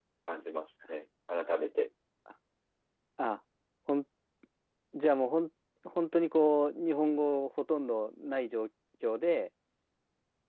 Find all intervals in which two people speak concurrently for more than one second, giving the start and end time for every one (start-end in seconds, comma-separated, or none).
none